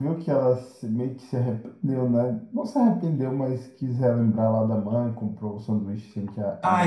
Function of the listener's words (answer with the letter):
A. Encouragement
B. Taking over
B